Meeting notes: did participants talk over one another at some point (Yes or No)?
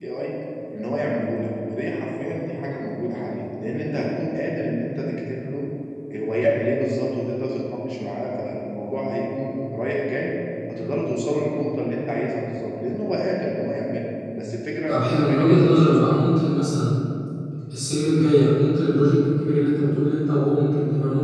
Yes